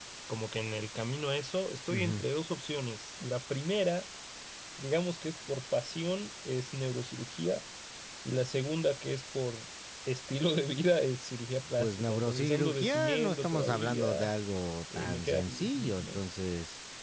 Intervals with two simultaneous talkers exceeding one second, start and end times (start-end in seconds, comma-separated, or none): 11.8-14.3, 14.9-16.2